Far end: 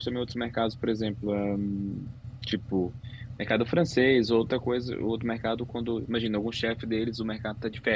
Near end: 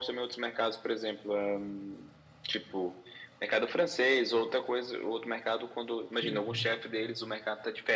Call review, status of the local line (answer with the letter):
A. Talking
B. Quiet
A